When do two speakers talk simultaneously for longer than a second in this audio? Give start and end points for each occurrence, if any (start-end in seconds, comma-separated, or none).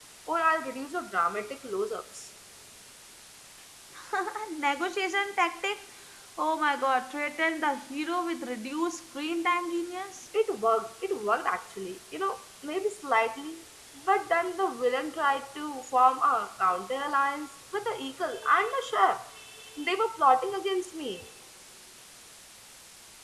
none